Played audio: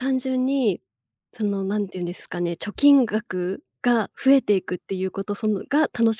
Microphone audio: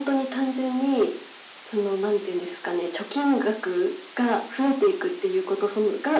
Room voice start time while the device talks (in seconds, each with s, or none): none